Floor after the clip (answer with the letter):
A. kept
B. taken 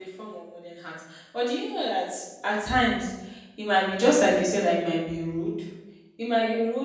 A